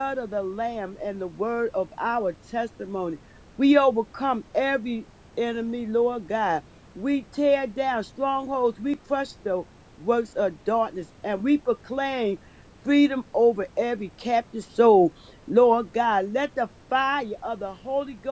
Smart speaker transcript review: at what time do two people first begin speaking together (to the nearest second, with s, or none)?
none